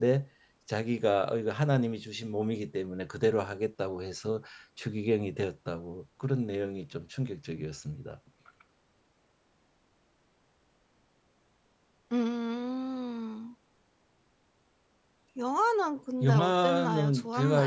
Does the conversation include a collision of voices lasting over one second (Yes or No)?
Yes